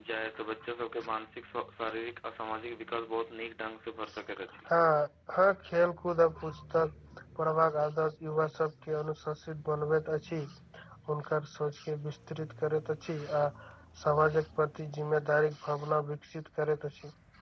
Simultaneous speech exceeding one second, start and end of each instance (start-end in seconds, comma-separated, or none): none